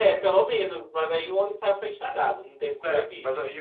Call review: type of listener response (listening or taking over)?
taking over